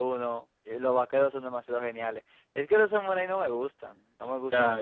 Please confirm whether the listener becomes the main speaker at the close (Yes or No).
Yes